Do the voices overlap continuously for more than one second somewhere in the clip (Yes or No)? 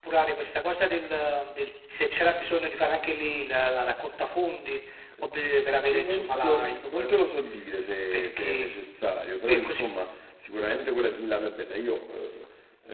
Yes